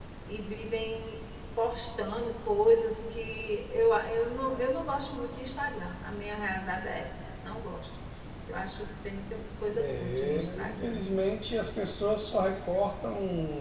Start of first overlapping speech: 10 s

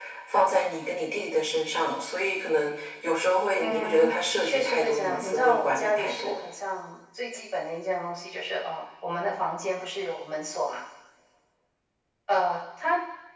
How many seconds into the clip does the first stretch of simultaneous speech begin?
4 s

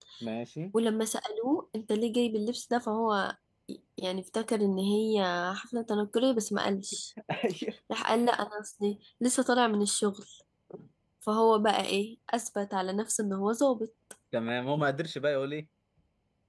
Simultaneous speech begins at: none

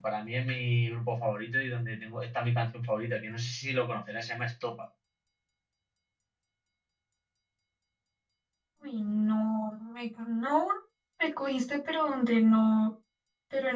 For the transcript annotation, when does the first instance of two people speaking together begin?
none

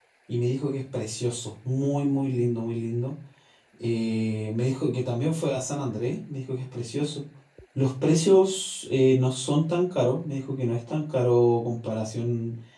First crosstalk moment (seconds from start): none

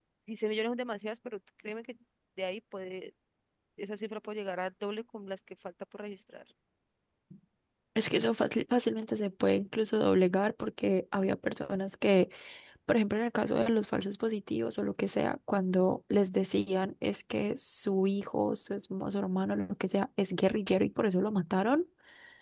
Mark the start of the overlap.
none

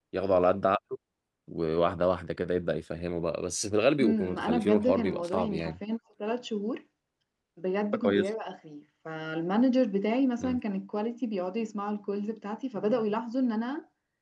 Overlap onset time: 4 s

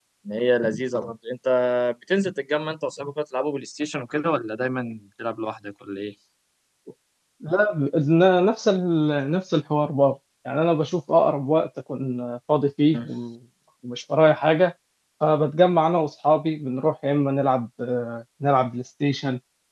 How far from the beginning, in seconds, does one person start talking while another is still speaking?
none

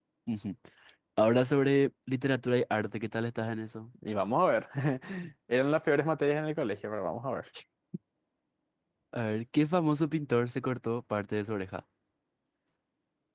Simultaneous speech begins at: none

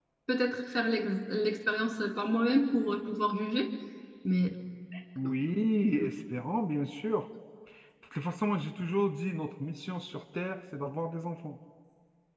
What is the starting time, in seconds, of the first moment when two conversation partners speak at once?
none

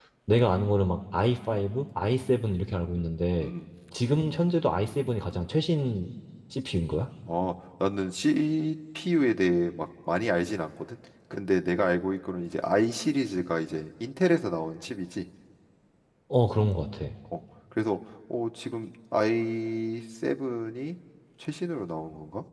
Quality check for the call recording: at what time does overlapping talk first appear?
none

